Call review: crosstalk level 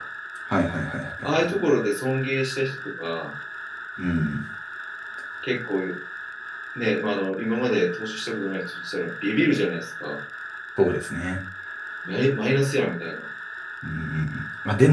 none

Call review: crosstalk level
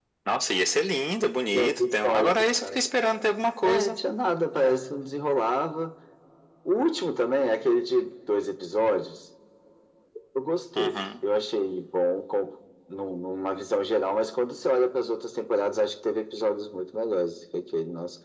present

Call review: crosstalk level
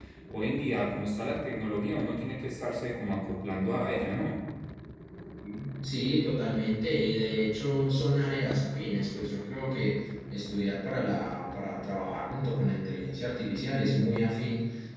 none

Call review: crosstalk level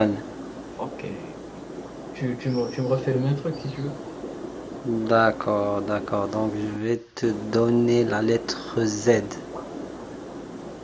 none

